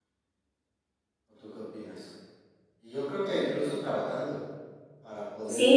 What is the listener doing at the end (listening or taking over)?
taking over